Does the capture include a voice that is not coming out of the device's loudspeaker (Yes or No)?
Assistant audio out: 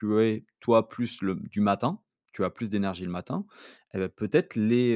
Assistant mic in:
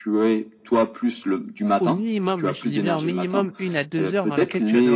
Yes